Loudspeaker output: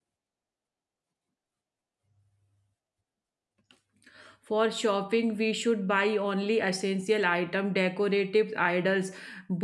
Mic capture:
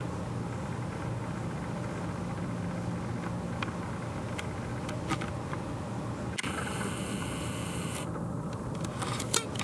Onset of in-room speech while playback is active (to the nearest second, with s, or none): none